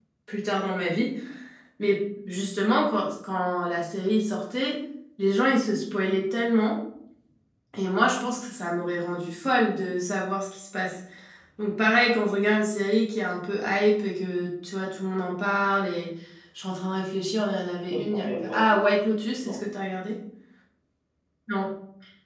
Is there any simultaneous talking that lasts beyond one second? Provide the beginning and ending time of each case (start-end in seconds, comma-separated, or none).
17.9-19.6